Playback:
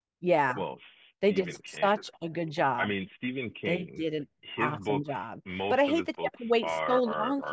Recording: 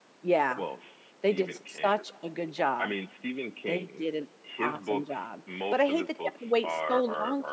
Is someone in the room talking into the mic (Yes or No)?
No